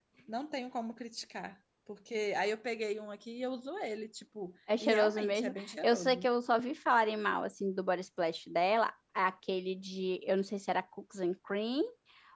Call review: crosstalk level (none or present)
present